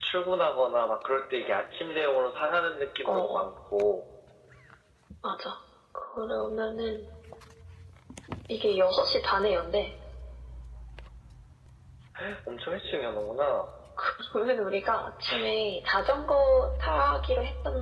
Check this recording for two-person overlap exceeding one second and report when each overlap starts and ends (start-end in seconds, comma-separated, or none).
none